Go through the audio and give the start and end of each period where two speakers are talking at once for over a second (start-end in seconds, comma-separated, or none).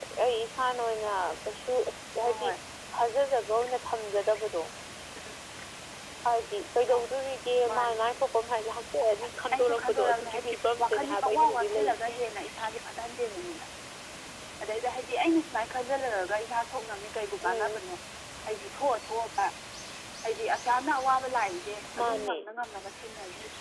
9.6-12.0